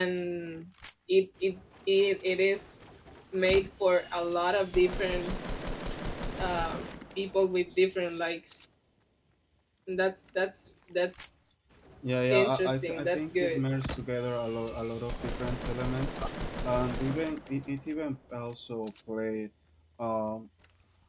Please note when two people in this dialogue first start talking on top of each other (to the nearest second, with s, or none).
12 s